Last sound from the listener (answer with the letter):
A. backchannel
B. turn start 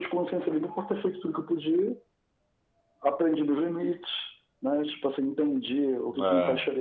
A